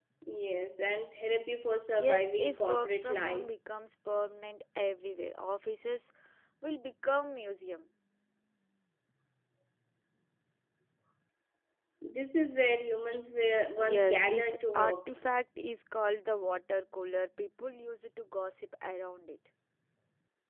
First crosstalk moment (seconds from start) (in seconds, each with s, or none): 2.0 s